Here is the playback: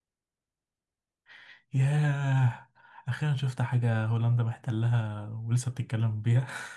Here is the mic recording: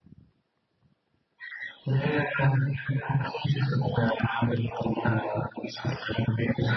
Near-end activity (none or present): none